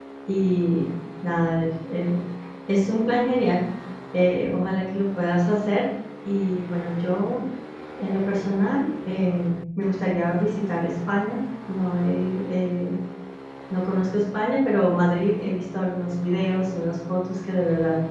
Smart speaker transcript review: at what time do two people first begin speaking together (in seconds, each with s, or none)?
none